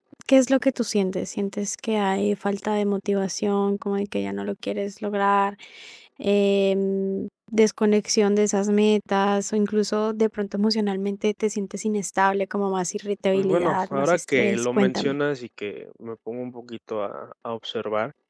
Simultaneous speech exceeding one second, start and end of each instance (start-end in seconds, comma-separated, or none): 13.3-15.1